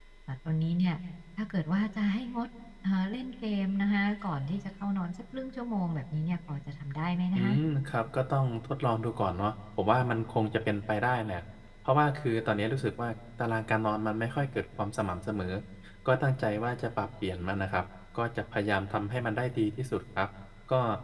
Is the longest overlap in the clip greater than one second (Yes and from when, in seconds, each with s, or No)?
No